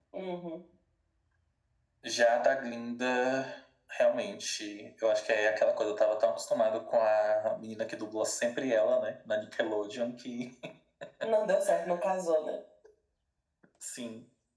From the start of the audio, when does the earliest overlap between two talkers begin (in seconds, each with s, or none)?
none